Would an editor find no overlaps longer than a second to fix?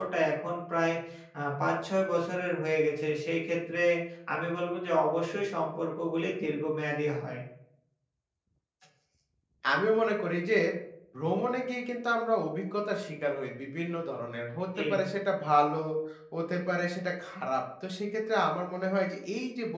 Yes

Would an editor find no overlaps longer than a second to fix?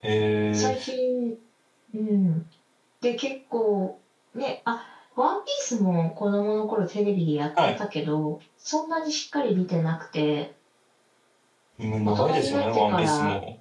No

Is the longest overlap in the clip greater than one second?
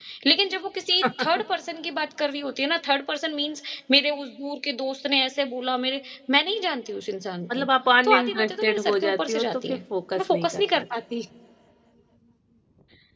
Yes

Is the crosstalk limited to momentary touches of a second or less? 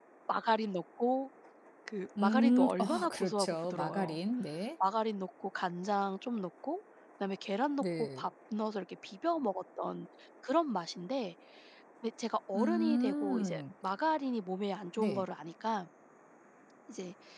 No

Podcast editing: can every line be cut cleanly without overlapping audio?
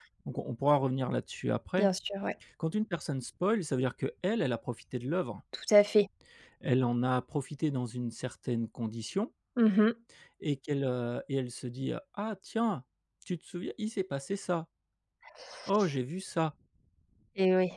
Yes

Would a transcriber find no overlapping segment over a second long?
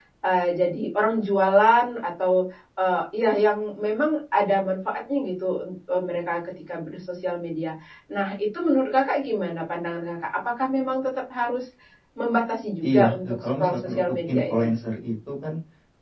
No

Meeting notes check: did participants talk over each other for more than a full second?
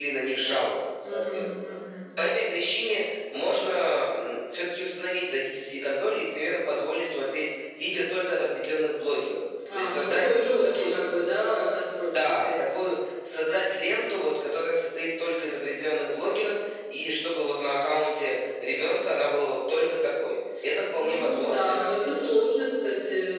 Yes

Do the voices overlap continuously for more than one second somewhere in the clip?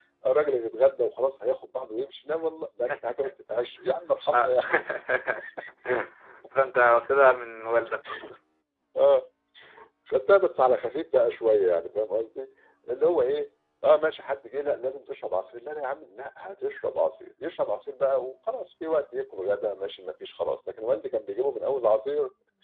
No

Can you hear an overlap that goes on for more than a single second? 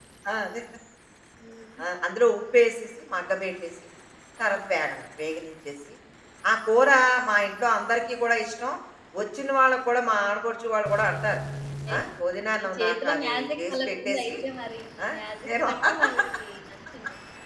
Yes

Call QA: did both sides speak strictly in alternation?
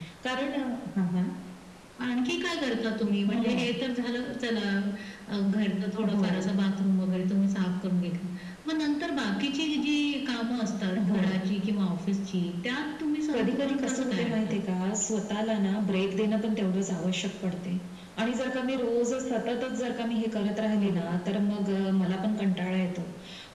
No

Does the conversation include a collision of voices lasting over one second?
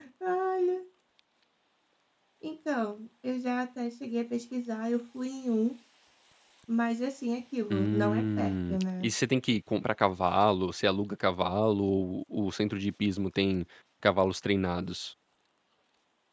Yes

